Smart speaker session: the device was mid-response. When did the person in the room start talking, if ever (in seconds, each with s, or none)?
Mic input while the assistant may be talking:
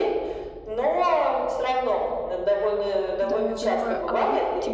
3.2 s